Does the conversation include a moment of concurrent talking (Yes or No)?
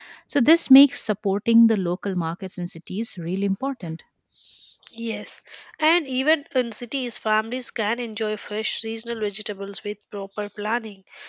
No